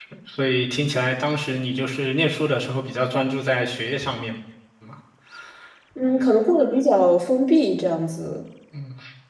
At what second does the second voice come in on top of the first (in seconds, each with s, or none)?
none